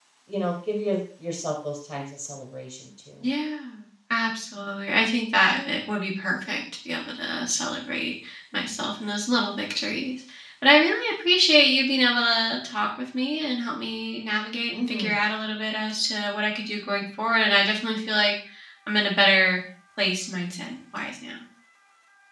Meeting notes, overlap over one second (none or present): none